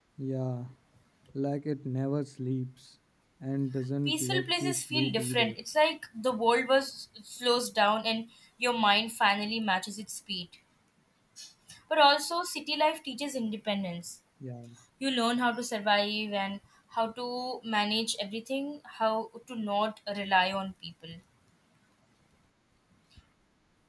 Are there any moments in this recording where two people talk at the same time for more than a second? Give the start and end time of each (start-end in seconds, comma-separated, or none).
4.1-5.6